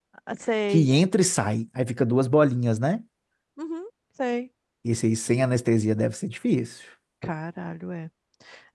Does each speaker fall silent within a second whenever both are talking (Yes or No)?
Yes